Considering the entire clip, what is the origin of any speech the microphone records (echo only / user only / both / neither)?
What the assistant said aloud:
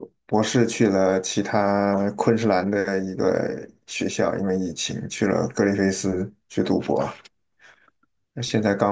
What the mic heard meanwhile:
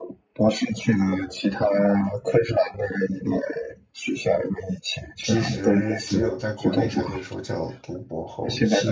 both